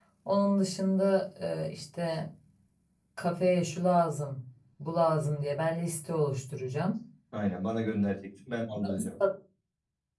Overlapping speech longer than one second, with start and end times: none

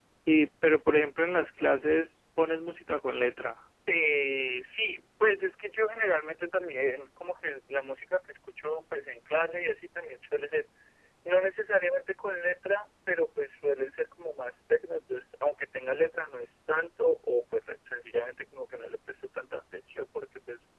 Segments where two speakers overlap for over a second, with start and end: none

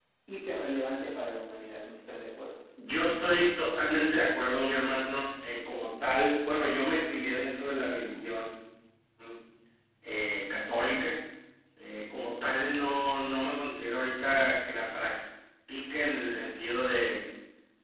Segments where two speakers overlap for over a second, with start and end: none

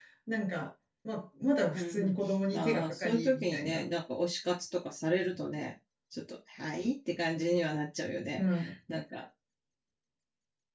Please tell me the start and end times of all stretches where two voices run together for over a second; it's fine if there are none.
2.5-3.9

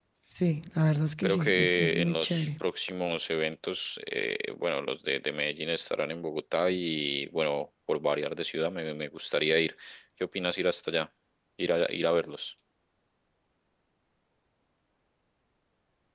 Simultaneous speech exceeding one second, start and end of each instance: 1.2-2.5

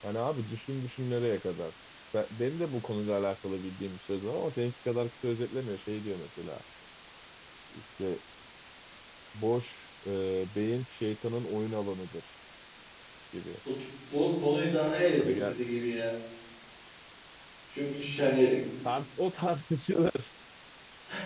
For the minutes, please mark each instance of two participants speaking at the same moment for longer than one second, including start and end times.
none

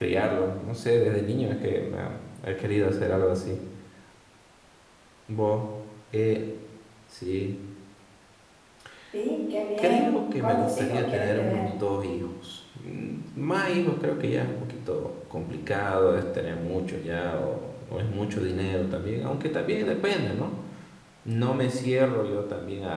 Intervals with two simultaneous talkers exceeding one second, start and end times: 9.8-11.7

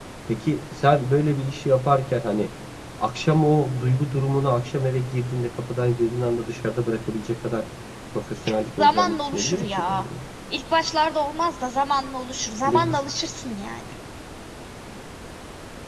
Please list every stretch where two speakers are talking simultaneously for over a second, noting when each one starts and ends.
8.8-10.0

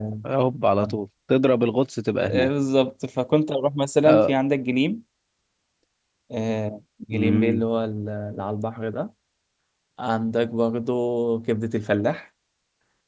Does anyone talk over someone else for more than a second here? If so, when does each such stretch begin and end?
none

